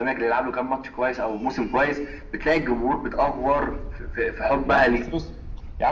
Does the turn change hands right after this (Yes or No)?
Yes